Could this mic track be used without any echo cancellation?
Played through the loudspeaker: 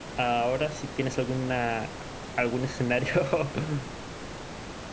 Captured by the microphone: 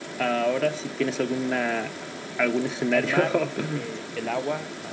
No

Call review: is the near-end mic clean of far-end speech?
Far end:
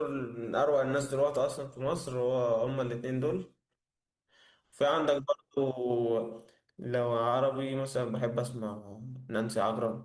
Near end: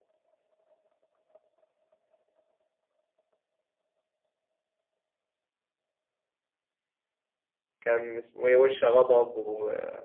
Yes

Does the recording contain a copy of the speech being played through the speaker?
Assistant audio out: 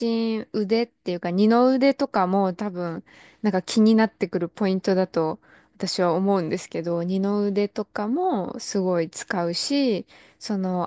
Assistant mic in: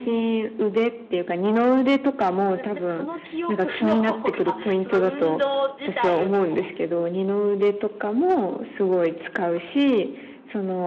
Yes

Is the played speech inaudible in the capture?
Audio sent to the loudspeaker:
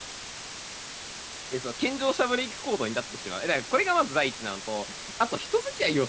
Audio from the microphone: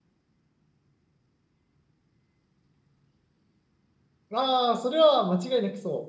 Yes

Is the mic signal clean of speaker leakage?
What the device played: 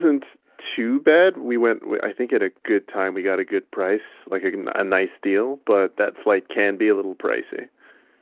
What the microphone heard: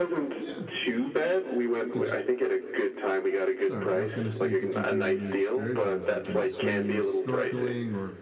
No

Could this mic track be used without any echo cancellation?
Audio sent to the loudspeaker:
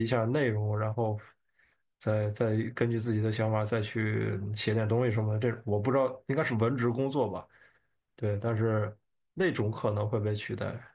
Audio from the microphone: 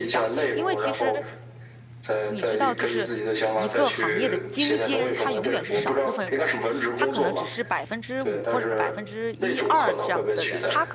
No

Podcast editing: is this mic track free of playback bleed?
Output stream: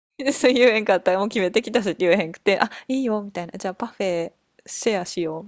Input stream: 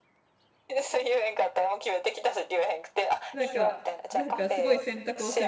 No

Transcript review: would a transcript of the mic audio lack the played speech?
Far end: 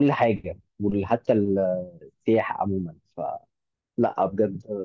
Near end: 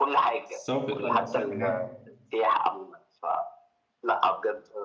No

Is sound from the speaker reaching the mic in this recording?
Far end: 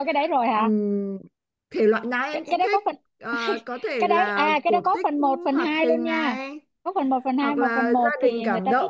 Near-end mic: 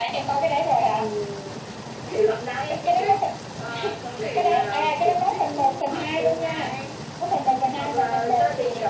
Yes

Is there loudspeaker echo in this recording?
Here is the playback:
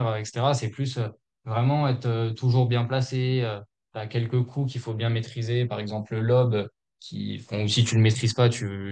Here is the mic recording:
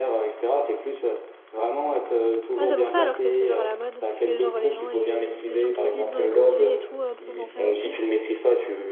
Yes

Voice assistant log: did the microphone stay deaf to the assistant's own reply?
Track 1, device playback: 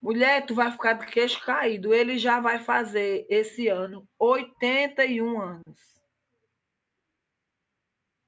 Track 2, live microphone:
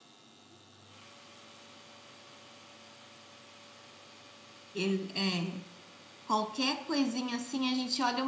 Yes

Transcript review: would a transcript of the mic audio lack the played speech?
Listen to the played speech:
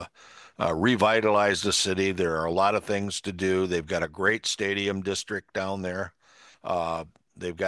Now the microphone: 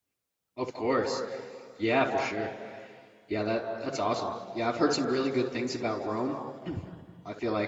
Yes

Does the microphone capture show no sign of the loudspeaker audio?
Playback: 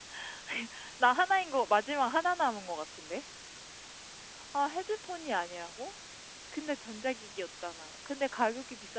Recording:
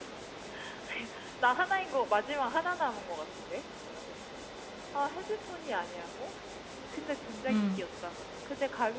No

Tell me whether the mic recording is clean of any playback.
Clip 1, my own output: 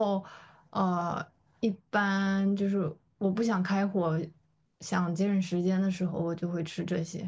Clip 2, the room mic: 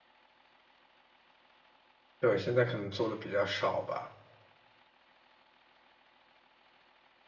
Yes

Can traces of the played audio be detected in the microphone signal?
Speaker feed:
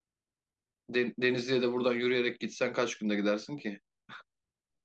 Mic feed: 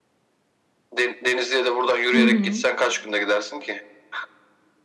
Yes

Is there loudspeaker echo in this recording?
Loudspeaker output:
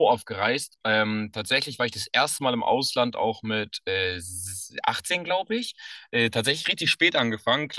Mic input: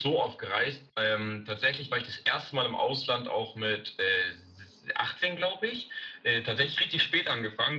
Yes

